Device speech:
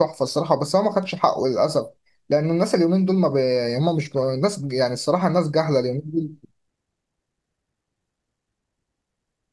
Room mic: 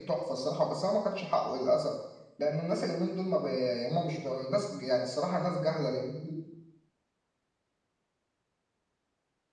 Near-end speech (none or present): none